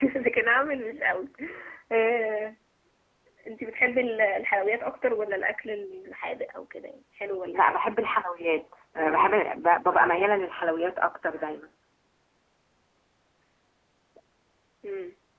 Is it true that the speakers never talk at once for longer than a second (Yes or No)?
Yes